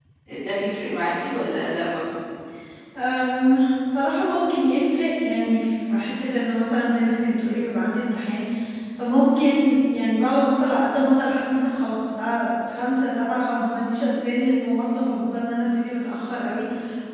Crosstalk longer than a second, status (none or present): none